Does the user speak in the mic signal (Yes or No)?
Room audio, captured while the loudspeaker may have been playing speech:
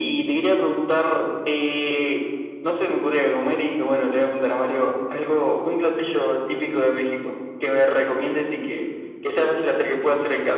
No